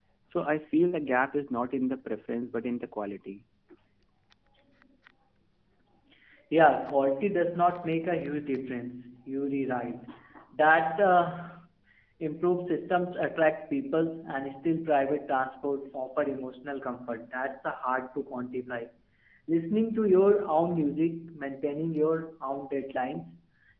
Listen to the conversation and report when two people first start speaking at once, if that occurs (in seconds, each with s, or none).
none